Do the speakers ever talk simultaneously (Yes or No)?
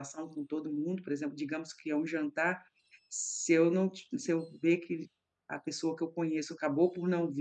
No